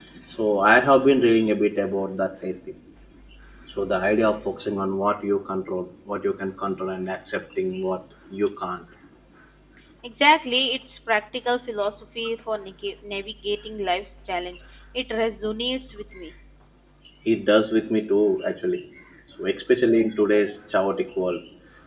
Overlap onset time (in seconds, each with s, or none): none